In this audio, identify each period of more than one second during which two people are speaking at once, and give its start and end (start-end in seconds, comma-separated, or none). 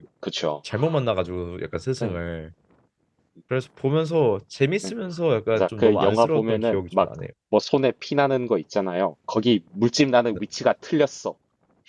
5.5-7.1